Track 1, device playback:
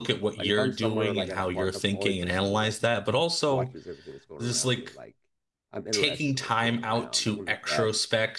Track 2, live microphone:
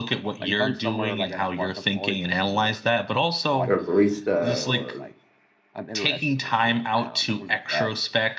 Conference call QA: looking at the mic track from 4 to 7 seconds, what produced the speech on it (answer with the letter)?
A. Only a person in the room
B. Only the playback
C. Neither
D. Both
D